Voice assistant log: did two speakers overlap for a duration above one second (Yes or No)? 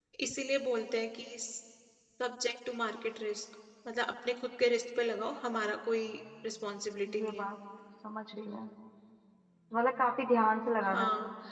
No